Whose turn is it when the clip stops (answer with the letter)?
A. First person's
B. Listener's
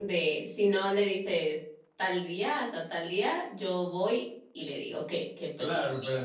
B